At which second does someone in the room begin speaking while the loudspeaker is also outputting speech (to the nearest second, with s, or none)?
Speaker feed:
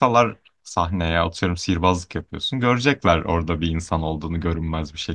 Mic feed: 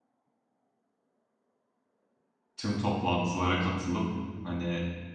3 s